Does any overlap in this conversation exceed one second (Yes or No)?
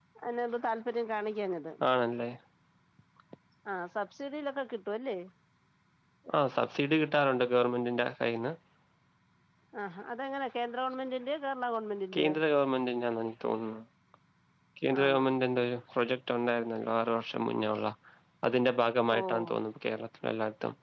No